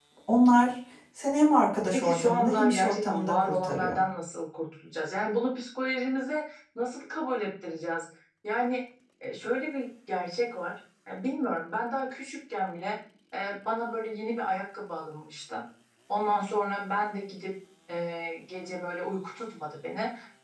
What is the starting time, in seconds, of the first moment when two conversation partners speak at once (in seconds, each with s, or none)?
1.9 s